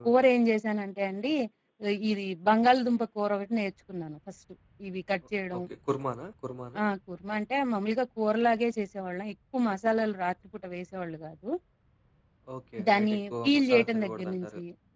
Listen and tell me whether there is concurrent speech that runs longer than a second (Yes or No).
Yes